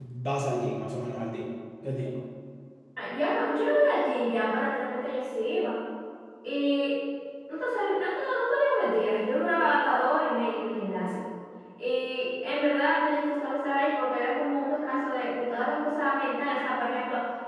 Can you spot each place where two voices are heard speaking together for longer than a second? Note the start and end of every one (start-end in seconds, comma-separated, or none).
none